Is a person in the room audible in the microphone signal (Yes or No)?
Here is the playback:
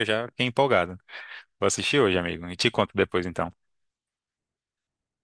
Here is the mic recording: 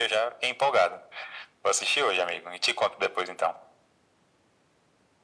No